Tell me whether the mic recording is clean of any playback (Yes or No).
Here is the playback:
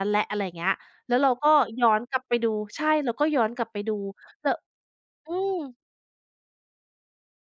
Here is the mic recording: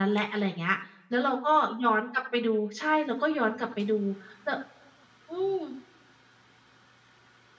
No